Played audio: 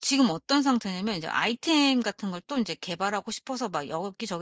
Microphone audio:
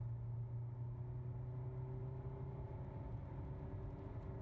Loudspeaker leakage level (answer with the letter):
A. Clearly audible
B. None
B